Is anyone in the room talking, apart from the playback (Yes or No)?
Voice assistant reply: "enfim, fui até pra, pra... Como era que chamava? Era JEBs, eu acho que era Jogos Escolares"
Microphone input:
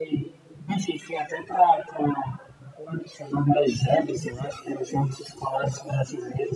No